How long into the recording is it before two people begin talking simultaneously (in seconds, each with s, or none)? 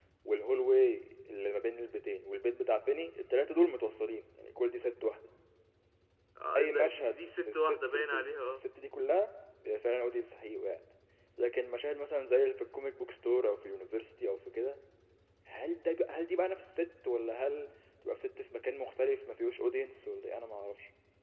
6.6 s